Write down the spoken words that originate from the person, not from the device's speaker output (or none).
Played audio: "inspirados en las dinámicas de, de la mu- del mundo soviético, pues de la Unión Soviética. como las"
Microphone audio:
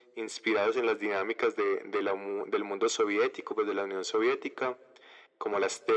none